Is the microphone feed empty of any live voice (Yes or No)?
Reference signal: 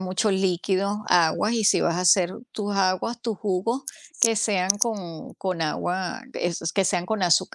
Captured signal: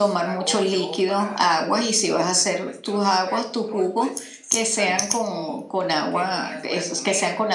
No